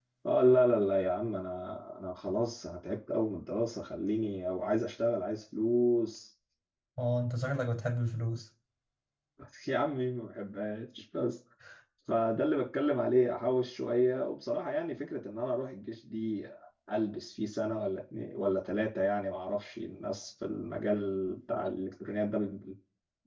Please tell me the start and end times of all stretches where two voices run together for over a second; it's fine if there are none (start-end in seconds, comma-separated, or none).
none